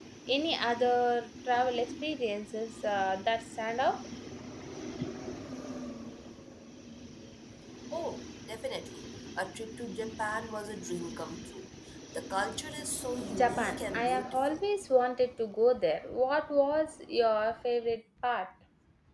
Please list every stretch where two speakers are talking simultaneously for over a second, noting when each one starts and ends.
13.3-14.6

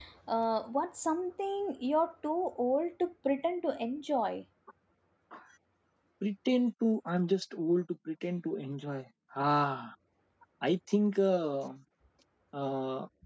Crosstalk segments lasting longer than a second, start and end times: none

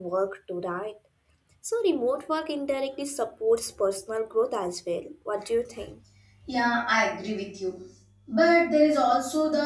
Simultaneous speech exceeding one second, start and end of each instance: none

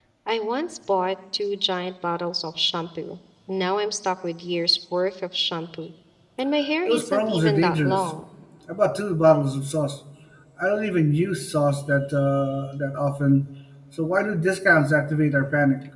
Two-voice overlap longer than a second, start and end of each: 6.9-8.1

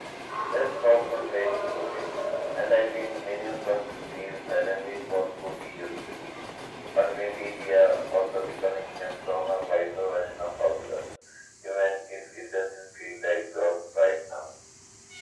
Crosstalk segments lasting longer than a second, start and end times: 0.5-2.1

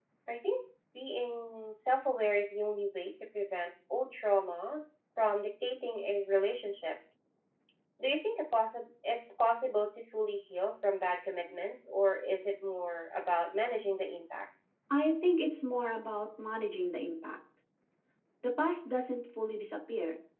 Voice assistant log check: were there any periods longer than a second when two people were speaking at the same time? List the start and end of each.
none

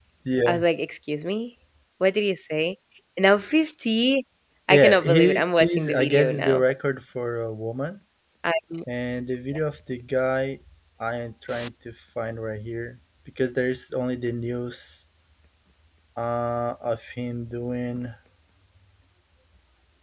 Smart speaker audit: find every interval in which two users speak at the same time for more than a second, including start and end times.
4.7-6.6

